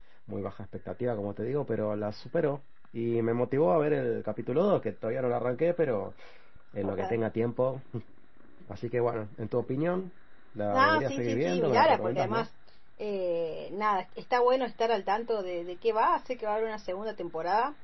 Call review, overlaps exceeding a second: present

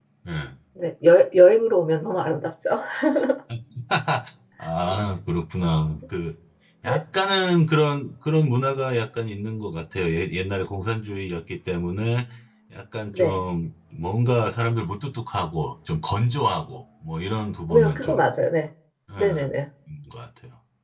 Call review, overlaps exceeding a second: none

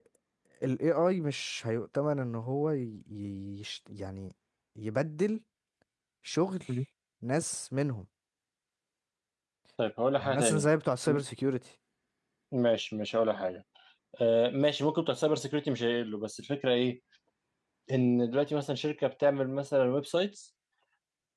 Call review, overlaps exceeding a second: none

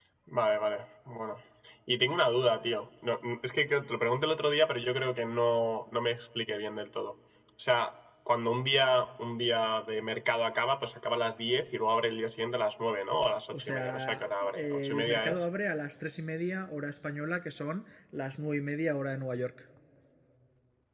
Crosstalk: present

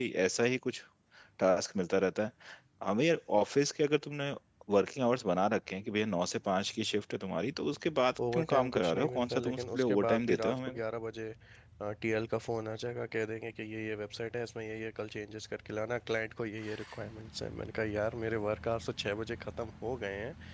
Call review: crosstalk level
present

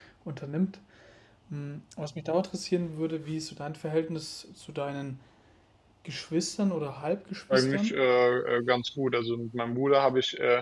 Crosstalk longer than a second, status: none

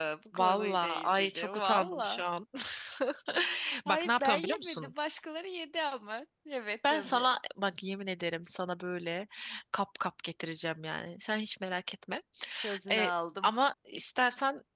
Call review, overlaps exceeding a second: present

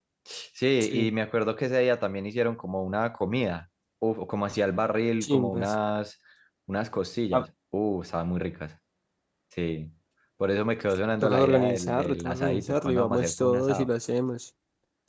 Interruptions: present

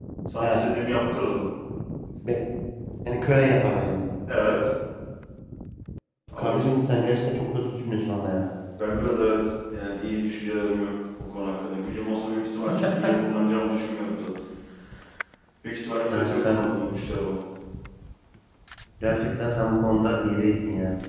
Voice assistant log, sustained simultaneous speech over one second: none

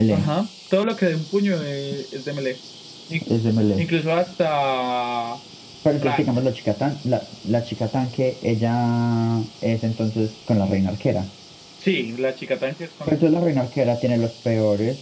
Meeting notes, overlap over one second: none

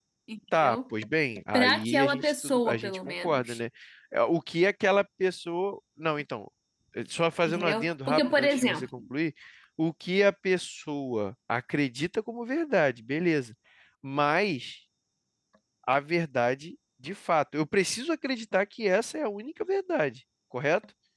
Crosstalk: present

